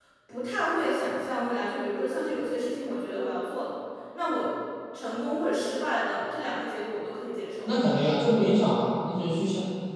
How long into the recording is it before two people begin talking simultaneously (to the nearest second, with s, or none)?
none